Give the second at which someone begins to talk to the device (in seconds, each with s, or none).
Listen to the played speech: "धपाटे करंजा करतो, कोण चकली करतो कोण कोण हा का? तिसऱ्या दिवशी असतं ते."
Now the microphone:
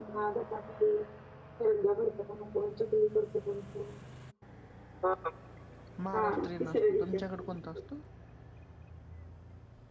6.0 s